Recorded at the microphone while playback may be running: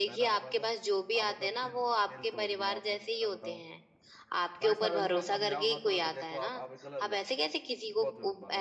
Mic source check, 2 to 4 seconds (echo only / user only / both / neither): both